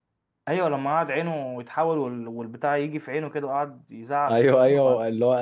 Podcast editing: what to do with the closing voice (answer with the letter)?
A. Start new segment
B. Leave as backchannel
A